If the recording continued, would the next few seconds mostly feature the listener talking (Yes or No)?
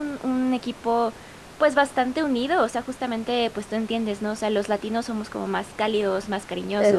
No